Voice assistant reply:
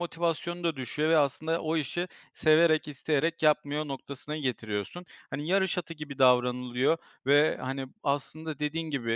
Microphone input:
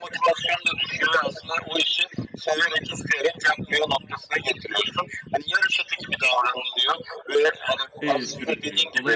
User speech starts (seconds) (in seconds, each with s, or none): 8.0 s